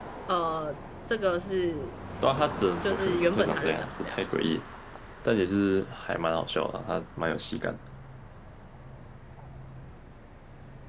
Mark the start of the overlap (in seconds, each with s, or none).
2.8 s